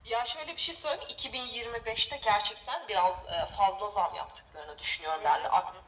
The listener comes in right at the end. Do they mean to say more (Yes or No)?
No